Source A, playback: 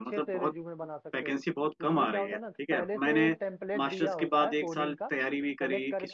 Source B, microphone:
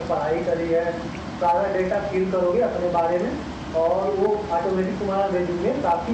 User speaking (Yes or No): Yes